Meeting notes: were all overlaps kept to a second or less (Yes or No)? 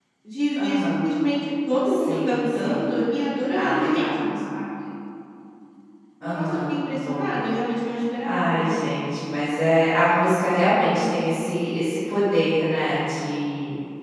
No